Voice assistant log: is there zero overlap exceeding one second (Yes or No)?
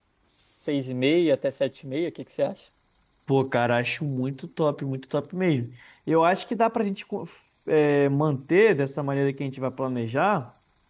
Yes